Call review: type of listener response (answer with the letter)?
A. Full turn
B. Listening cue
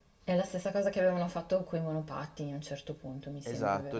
A